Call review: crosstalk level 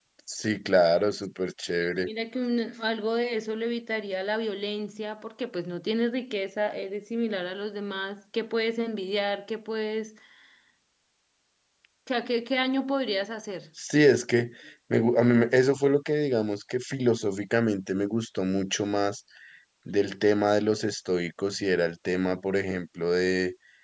none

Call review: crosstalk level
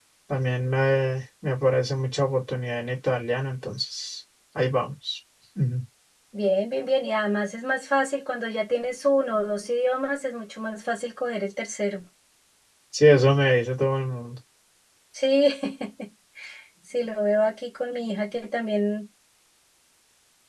none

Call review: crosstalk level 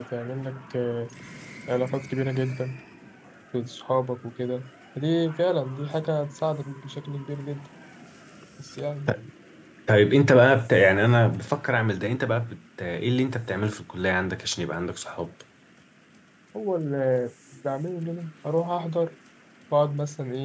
none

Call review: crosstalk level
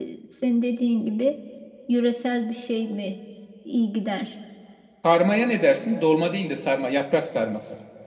none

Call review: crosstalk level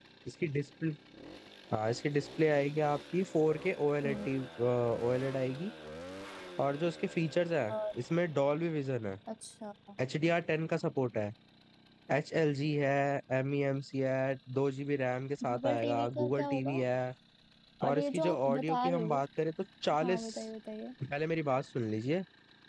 present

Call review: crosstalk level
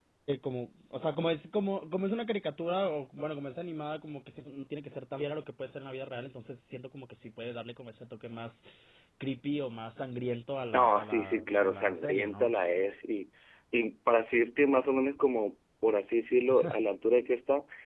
present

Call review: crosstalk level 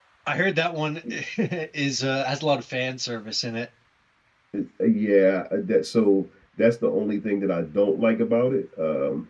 none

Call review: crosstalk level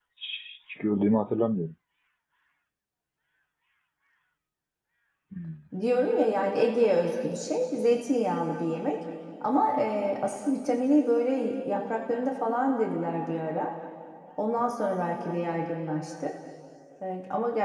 none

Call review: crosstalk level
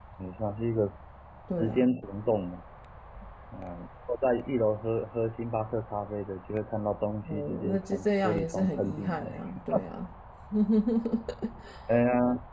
present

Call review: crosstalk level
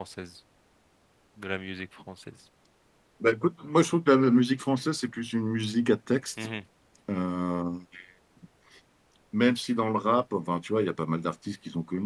none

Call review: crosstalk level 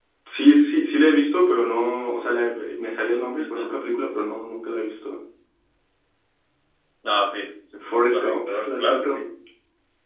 present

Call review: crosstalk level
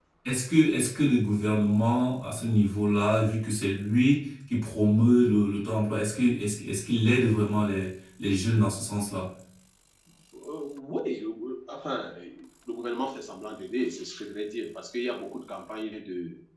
none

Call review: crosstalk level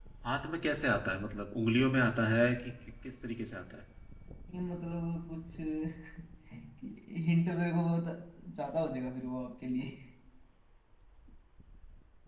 none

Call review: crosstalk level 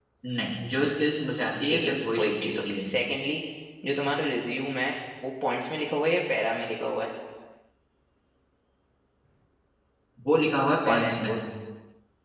present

